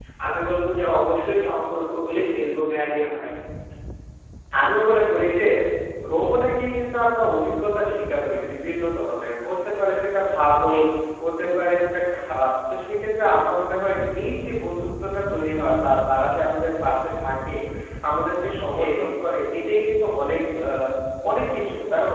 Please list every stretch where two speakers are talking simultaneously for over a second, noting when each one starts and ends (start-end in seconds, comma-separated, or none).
none